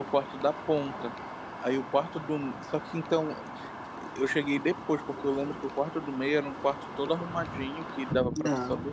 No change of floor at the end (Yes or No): Yes